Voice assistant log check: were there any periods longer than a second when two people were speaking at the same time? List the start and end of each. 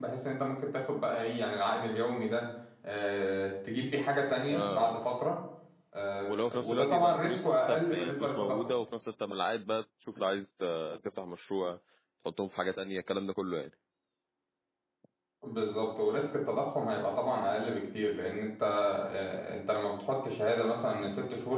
6.3-8.7

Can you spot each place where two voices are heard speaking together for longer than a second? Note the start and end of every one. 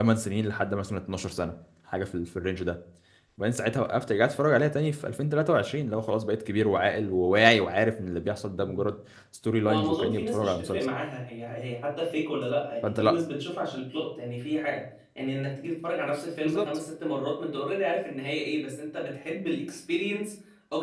9.7-10.9

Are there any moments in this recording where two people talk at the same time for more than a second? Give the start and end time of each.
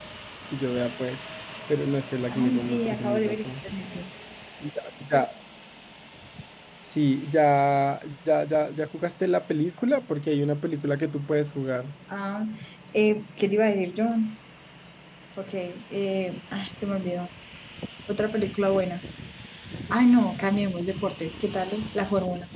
2.3-3.5

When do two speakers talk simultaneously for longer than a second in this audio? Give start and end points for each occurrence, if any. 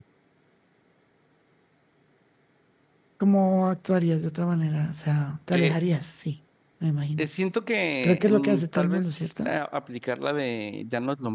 8.0-9.5

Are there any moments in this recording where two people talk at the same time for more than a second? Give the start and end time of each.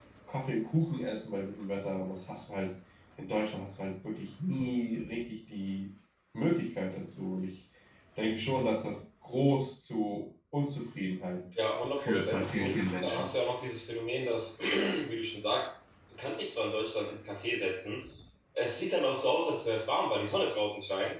11.9-13.3

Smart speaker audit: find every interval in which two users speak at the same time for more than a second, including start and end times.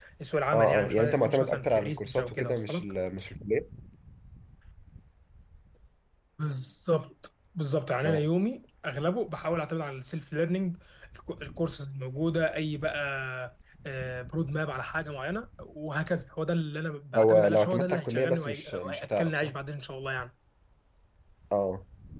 0.5-2.9, 17.1-19.5

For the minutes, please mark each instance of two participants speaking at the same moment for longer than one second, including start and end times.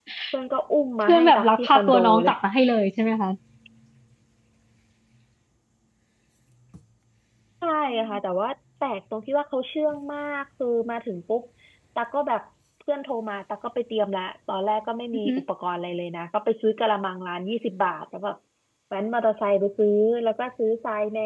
1.0-2.3

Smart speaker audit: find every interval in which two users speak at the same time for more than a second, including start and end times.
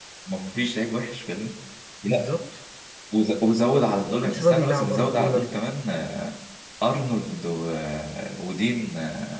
4.1-5.6

